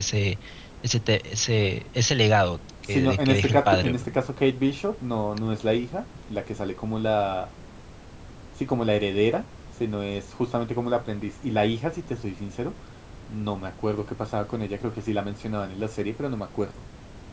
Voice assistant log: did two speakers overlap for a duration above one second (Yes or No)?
Yes